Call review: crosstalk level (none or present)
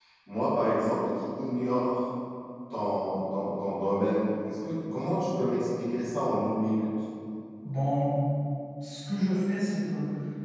none